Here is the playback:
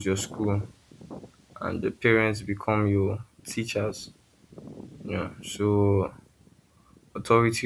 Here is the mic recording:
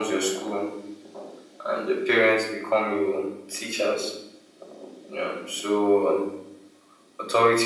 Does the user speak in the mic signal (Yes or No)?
No